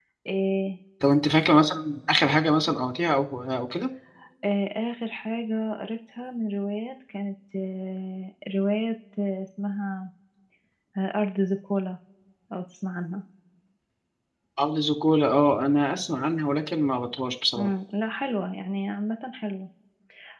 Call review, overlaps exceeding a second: none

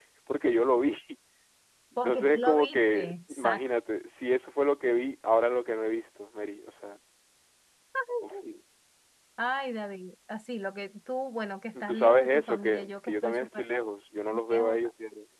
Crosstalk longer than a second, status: present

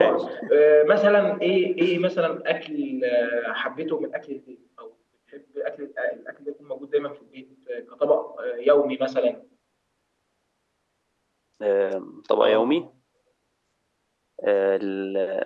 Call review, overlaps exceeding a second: none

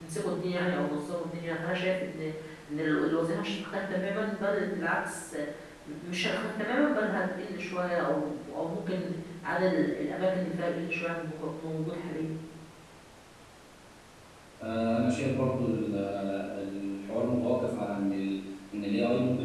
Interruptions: none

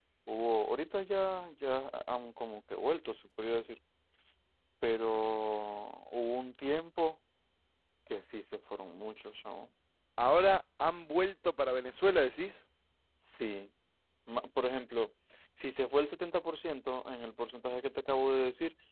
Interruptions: none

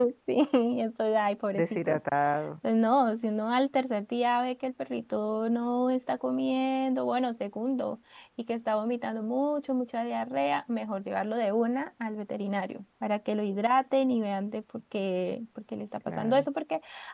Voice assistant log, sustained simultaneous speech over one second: none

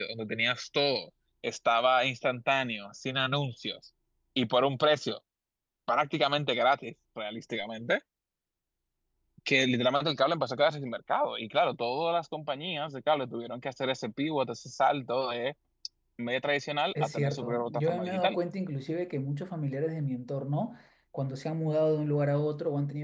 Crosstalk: present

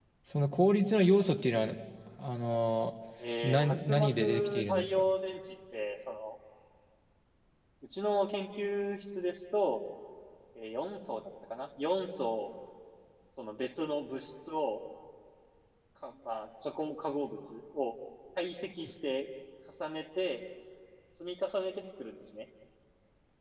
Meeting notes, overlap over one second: present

